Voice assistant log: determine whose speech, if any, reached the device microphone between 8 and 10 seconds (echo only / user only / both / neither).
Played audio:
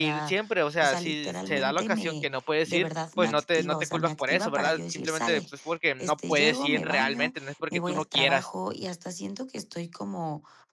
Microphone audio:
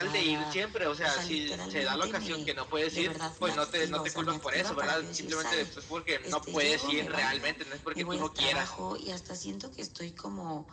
echo only